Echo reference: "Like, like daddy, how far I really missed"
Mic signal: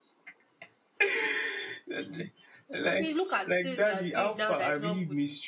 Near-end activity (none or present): present